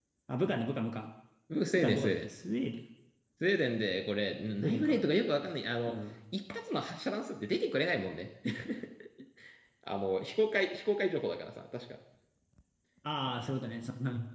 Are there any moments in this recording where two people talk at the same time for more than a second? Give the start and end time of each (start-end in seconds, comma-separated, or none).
none